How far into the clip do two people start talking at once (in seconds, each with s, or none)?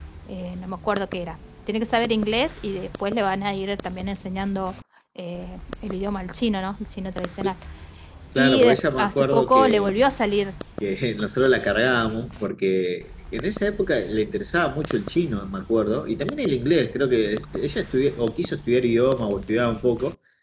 8.4 s